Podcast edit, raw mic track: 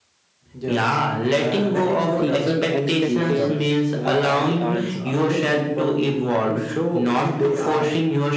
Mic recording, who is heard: both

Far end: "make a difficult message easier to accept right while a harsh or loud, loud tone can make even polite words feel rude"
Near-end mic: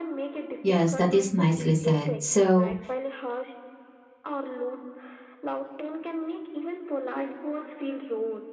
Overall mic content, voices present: both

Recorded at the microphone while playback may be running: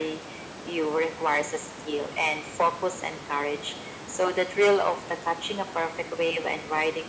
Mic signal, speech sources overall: echo only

